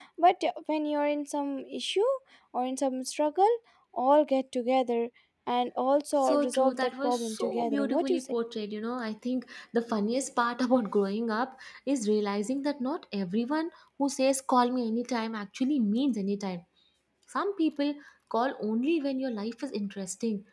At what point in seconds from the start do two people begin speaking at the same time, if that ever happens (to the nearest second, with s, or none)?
6 s